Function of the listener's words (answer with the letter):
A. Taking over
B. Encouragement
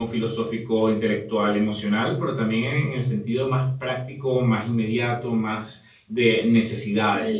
A